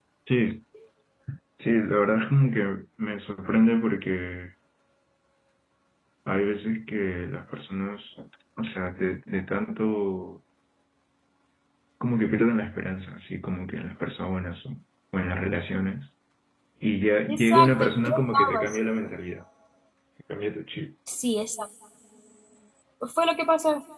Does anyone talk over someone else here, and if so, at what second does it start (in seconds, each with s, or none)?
17.3 s